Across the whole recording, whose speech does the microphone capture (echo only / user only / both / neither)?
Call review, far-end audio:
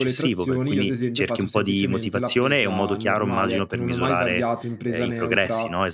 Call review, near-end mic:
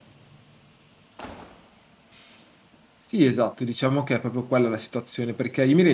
user only